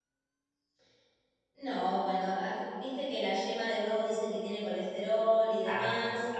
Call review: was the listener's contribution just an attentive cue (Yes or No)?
No